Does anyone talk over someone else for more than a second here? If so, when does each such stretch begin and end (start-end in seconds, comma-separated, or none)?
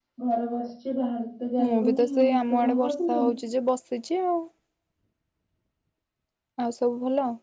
1.6-3.2